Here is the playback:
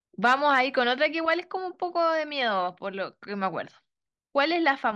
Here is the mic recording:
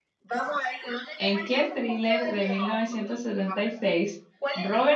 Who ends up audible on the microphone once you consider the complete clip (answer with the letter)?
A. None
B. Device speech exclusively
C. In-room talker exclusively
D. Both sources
D